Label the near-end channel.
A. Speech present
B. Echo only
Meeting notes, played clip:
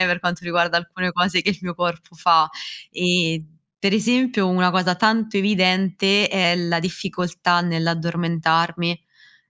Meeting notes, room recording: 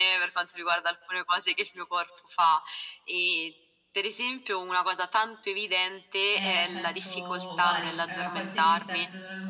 A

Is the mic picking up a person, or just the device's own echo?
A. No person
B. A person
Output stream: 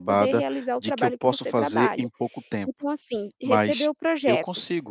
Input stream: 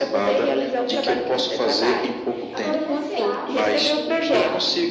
B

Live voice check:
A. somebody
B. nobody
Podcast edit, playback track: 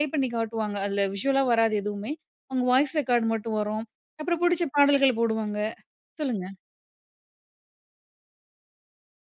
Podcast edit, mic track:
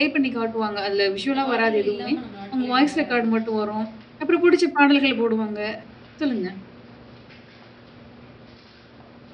A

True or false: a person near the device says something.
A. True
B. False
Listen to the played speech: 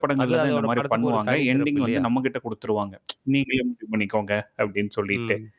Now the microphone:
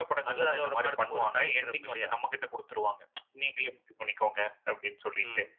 B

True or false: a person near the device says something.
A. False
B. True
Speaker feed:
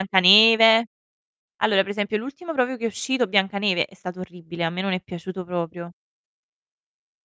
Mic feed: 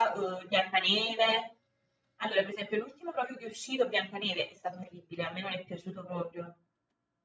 A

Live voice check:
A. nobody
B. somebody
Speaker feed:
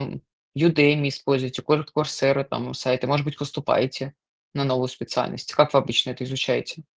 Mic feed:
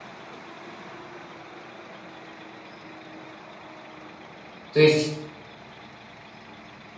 B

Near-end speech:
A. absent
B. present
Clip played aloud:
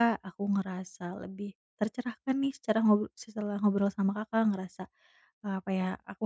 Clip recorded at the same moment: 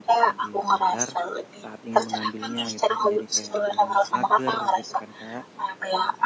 B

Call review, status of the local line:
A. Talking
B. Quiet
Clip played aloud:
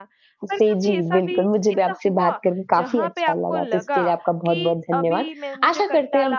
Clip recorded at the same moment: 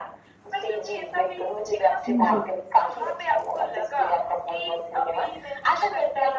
A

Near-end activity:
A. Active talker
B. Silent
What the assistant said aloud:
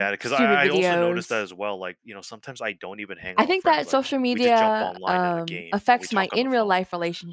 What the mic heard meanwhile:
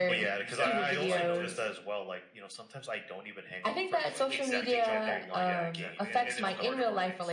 A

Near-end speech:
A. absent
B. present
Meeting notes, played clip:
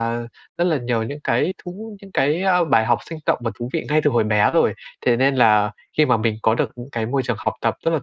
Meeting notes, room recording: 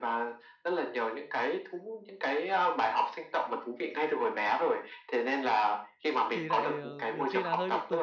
B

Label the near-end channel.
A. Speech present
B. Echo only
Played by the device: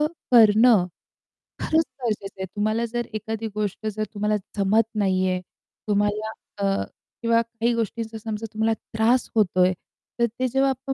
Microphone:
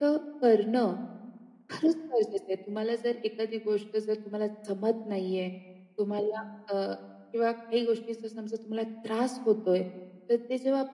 B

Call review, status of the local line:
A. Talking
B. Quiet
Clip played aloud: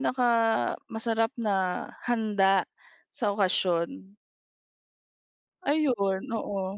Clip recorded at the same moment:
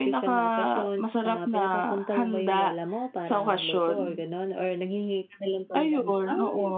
A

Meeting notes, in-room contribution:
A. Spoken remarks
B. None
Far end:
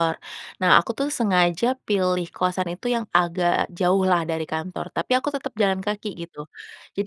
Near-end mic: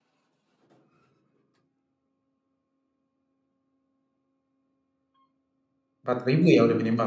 A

